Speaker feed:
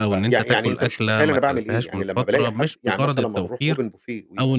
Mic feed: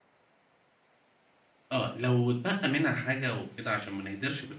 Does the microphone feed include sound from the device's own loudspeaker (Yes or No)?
No